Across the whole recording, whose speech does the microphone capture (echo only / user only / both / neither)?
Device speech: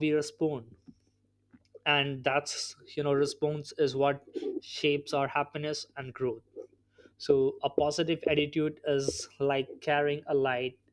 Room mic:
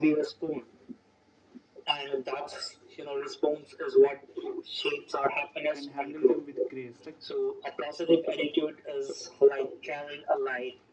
both